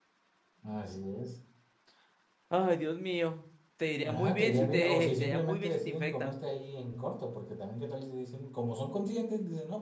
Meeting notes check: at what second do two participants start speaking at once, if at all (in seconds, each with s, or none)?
4.0 s